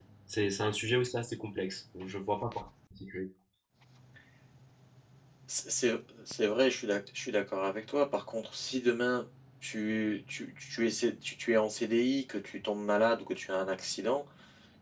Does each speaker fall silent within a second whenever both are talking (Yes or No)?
Yes